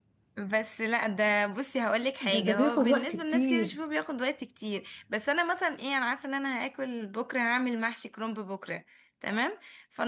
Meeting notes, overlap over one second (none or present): present